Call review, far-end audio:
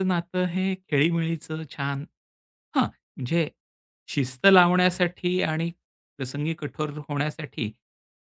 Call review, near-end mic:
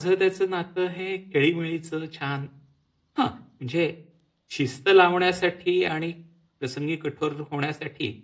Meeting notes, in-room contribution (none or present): none